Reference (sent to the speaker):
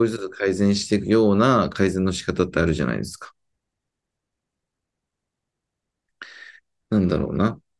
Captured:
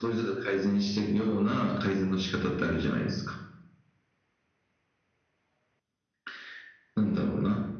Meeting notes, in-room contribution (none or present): none